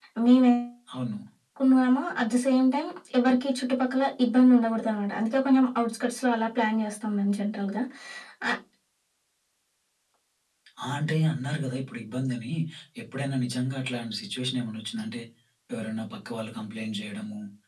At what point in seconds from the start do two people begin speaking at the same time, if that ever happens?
none

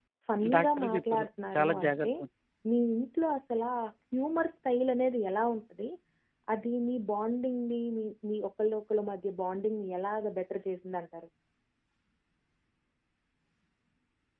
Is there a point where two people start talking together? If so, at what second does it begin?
1 s

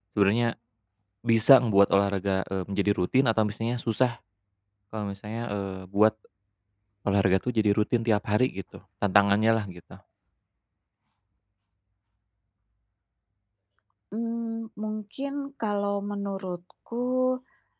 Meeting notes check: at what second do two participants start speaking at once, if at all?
none

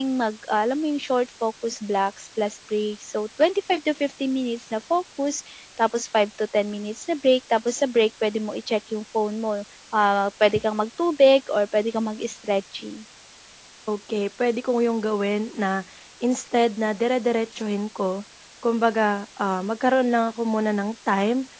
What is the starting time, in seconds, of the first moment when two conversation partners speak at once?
none

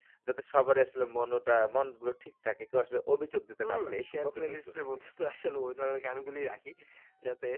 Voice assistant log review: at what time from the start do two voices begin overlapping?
4 s

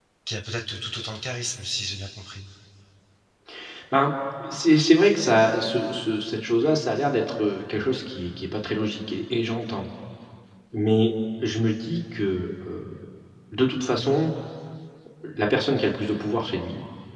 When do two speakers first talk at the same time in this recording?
none

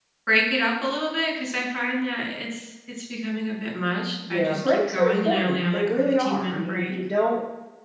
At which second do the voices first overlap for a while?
4 s

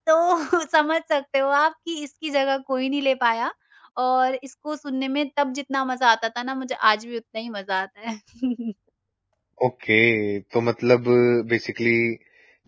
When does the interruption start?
none

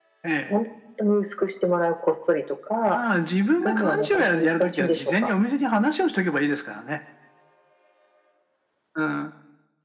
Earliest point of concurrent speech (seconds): 4 s

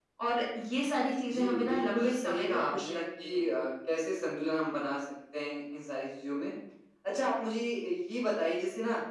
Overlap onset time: 1 s

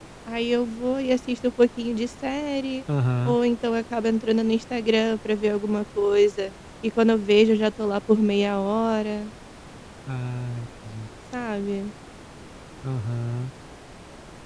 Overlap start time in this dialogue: none

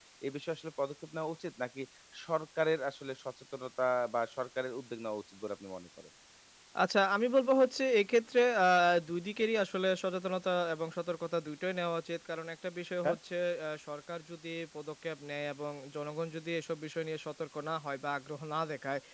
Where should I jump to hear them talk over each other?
none

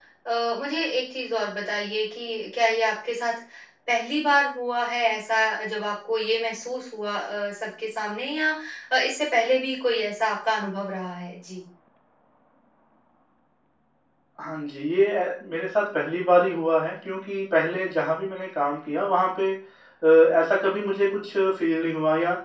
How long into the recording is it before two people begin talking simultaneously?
none

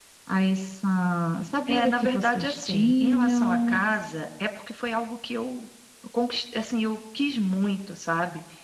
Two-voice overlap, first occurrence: 2 s

